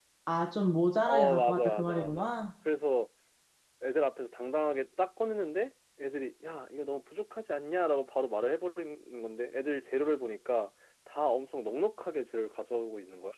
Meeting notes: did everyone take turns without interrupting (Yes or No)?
No